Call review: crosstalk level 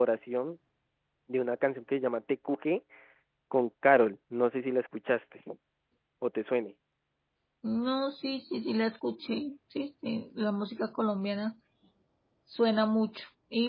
none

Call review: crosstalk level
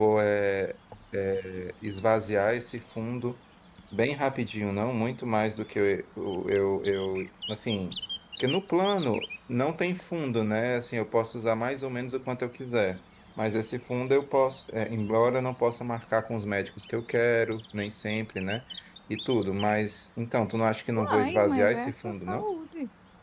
present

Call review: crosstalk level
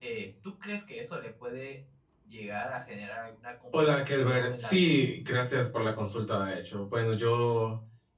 present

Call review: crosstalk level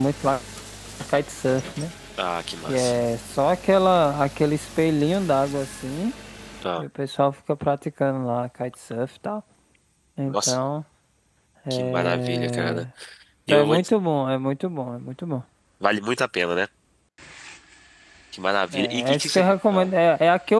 present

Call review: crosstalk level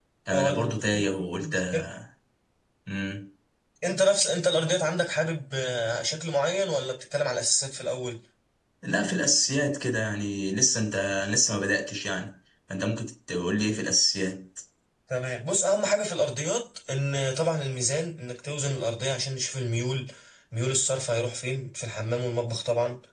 present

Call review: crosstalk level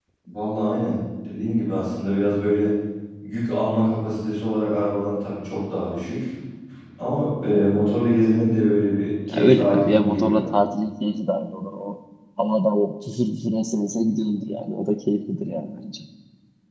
present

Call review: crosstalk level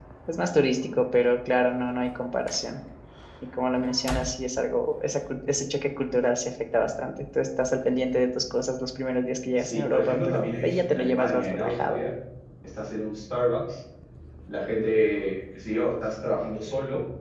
present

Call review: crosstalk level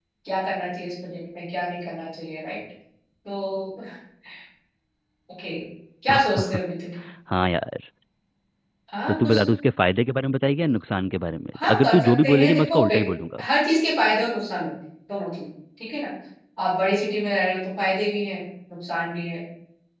present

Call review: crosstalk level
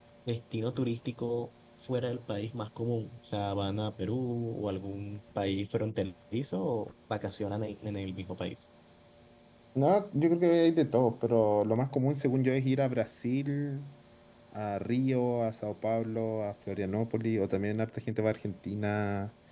none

